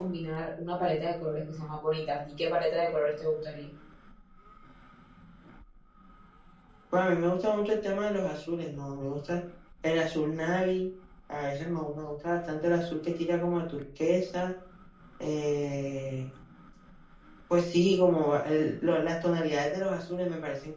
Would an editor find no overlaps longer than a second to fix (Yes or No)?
Yes